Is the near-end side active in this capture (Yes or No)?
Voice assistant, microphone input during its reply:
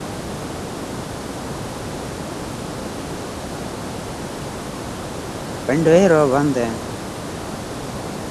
Yes